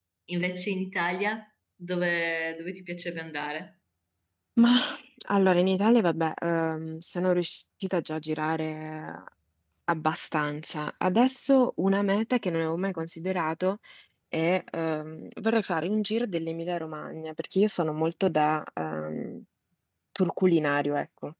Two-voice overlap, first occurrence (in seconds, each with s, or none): none